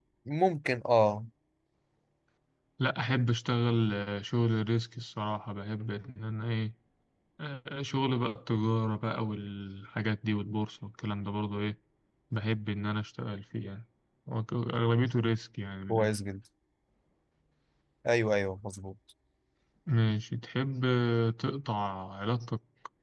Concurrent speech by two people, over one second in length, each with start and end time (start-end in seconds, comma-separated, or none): none